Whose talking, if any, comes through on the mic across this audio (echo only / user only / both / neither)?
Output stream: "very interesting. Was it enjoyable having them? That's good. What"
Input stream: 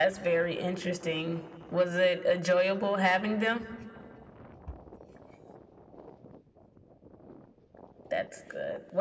echo only